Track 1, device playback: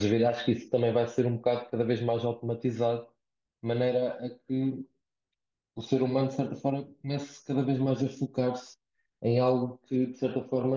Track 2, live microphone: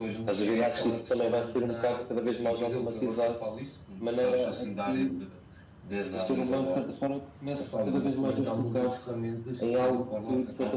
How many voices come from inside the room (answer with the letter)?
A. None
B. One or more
B